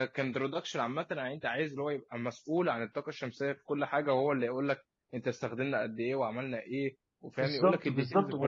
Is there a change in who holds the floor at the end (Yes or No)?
Yes